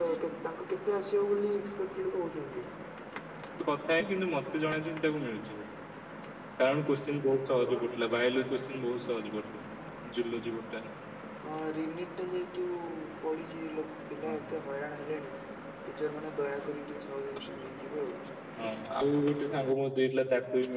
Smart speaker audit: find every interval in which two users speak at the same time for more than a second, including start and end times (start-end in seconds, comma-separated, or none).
none